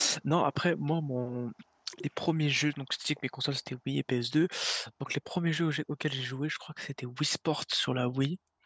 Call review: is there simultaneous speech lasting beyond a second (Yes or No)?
No